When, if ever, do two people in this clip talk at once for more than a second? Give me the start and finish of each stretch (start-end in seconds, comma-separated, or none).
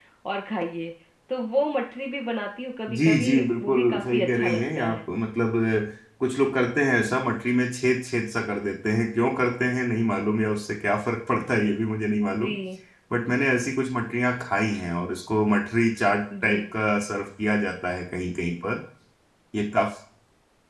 2.9-5.0